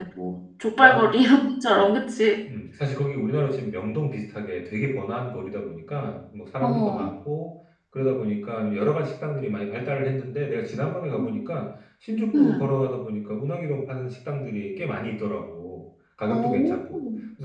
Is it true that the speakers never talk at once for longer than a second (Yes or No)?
Yes